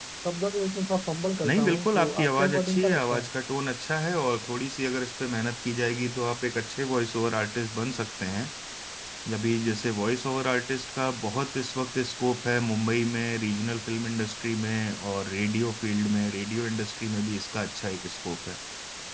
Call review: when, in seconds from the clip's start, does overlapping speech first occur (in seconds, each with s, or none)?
1.4 s